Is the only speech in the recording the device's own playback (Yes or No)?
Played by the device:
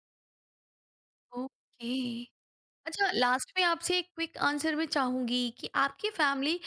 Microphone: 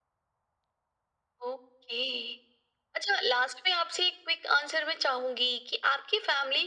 Yes